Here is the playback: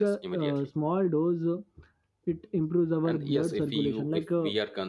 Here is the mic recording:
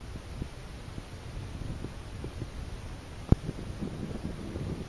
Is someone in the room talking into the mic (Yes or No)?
No